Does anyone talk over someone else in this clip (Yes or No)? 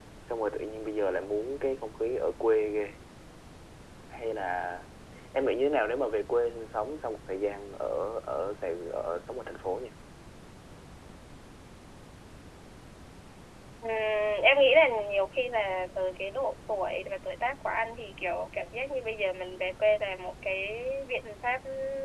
No